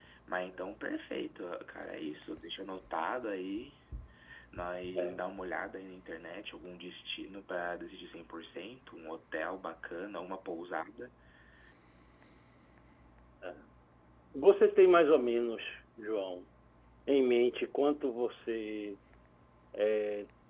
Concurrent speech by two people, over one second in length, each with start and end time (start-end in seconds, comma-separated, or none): none